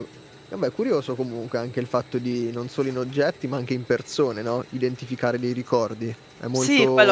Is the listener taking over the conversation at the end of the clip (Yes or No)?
Yes